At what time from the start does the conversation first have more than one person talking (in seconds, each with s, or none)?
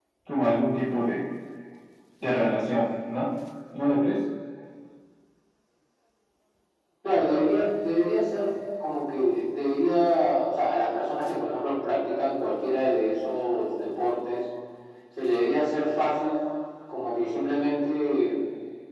none